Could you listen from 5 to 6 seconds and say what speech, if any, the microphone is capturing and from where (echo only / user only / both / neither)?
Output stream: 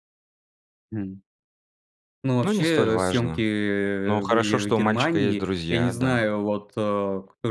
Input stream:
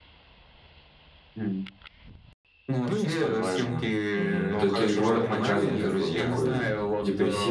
both